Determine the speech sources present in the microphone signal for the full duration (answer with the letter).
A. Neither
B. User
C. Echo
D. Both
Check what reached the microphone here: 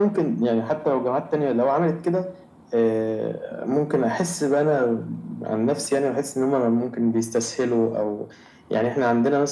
C